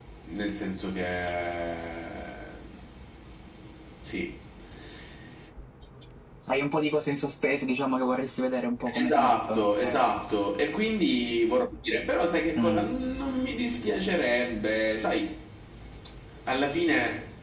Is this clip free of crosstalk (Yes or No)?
No